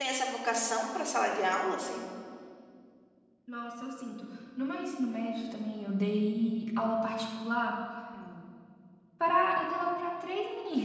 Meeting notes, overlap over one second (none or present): none